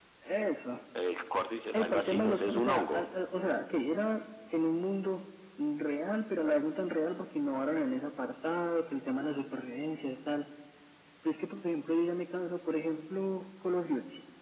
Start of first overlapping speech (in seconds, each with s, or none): 1.7 s